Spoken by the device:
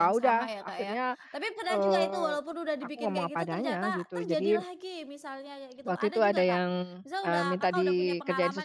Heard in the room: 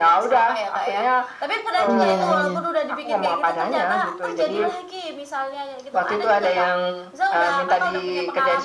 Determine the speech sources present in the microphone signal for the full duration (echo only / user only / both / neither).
both